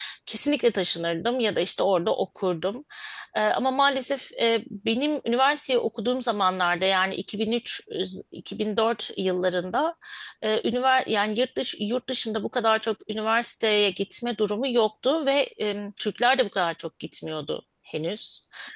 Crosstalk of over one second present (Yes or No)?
No